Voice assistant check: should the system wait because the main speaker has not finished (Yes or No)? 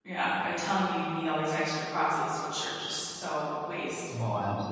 No